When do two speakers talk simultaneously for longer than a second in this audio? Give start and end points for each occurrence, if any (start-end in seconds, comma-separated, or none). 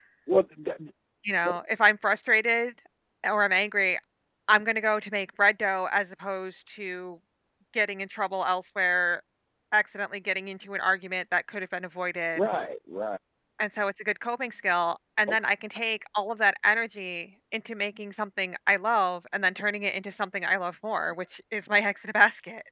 none